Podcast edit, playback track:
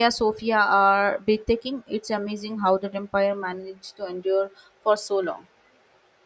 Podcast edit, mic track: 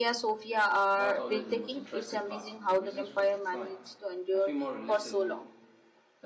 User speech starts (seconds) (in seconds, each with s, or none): 0.9 s